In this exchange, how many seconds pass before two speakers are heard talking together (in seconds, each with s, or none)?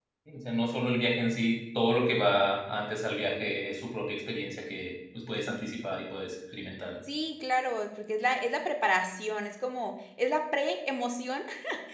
none